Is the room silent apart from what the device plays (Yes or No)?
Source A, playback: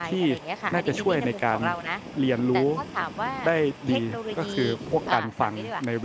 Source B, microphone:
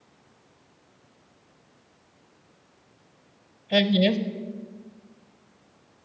No